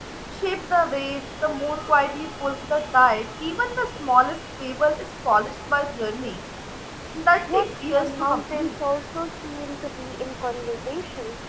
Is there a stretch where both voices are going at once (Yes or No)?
Yes